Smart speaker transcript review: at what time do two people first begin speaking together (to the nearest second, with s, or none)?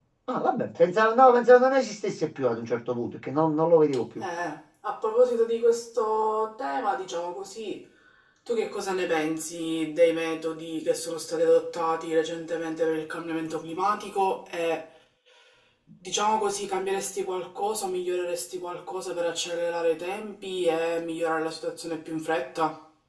none